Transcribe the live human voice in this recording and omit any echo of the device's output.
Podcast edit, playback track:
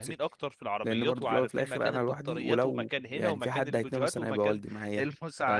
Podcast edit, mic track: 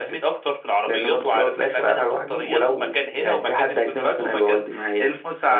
none

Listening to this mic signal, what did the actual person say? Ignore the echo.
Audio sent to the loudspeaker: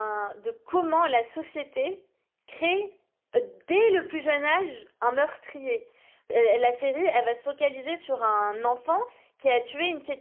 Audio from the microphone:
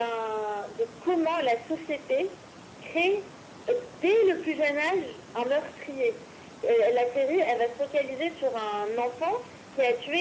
none

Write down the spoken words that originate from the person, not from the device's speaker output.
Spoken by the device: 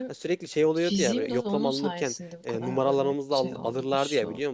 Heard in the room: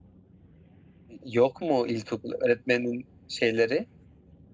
yok mu ilkokul öğretmeninin şeyleri?

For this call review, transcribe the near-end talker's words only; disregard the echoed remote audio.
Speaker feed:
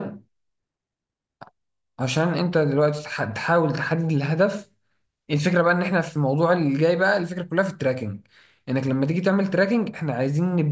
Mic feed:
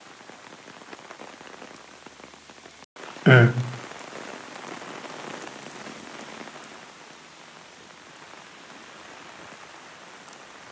امم

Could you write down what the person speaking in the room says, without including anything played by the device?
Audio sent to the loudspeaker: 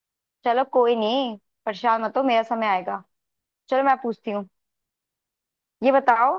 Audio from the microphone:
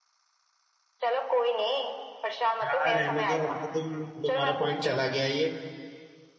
हाँ रहने दो अब तो तुम तुम्हारा पॉइंट चला गया ये

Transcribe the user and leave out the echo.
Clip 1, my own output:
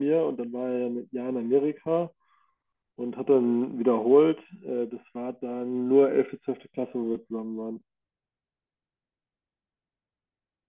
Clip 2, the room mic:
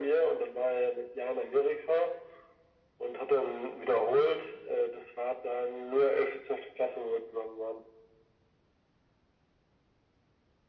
none

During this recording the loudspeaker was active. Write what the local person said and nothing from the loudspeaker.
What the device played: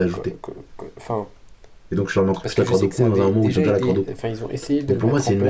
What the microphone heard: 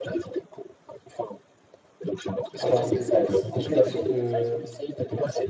Attends, ils te taxent en fonction de...

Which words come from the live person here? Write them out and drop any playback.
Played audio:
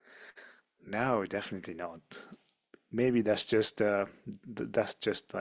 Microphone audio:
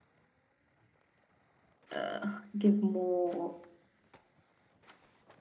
uh, give more

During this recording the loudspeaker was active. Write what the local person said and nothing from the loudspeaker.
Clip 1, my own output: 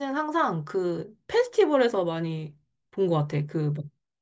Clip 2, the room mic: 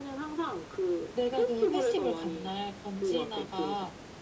내가 그 페스티벌 간 날 권지나가

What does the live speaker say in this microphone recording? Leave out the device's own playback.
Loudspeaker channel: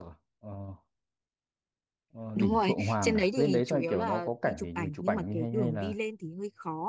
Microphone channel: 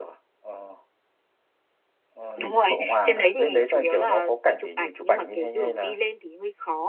none

